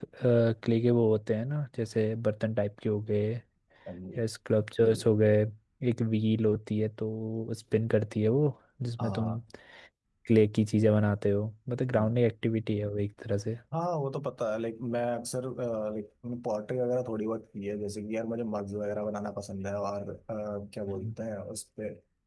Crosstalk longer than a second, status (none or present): none